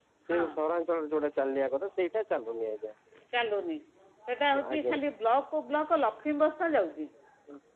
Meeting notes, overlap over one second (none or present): none